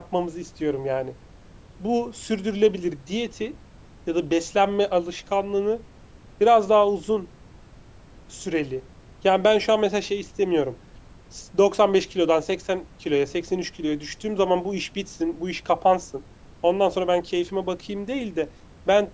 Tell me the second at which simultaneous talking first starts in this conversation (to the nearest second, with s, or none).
none